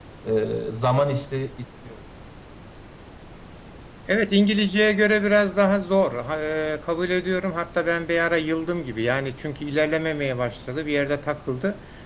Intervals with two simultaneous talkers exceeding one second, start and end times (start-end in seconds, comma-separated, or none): none